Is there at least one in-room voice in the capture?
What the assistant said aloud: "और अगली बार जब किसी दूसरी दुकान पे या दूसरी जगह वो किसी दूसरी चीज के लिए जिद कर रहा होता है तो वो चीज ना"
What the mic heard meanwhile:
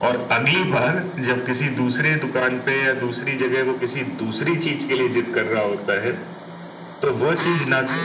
No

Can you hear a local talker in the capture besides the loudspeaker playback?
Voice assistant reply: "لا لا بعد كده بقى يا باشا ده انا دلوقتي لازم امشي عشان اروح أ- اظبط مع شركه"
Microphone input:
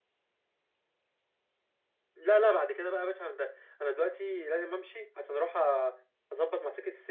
No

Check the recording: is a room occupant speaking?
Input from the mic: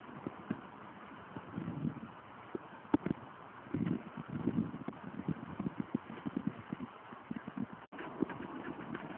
No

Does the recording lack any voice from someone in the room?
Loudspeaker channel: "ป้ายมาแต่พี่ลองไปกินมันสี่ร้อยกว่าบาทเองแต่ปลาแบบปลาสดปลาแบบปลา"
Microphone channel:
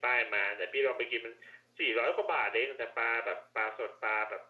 Yes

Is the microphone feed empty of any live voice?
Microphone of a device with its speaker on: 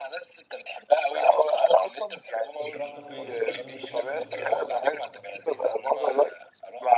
No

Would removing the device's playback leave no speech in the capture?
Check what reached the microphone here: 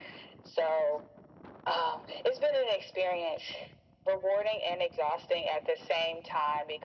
Yes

